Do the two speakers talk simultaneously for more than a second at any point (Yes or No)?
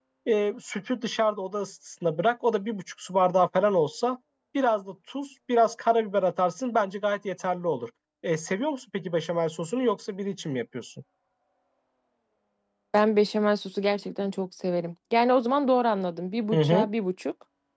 No